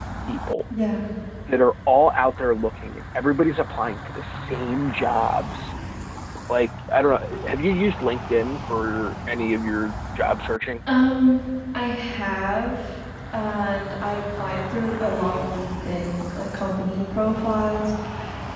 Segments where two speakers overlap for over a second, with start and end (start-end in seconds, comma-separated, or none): none